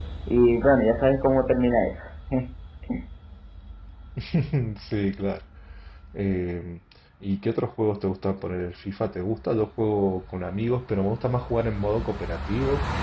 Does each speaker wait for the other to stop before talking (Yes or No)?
Yes